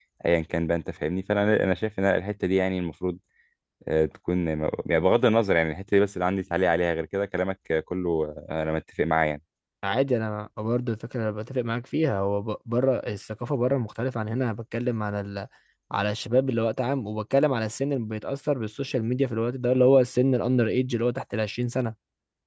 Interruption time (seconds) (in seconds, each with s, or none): none